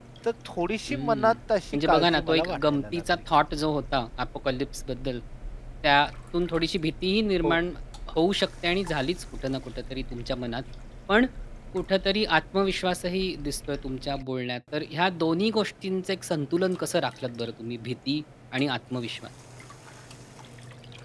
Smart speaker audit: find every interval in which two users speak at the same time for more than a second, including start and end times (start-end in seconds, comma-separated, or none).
1.7-3.2